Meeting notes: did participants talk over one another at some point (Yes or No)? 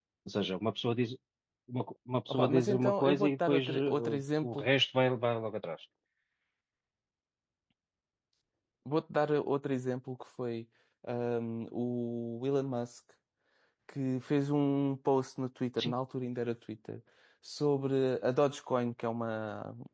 Yes